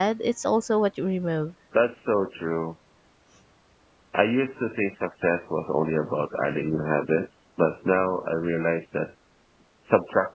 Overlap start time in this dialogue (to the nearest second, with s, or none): none